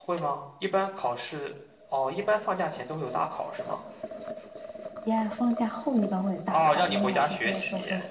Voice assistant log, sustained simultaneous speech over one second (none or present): present